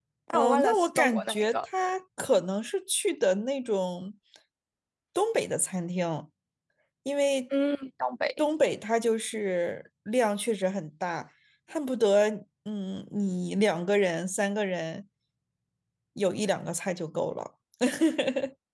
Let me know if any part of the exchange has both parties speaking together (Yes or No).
Yes